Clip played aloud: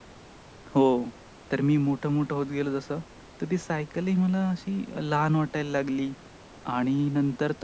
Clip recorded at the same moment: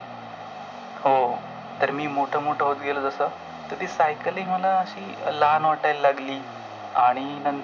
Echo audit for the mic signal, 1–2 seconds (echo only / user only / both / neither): echo only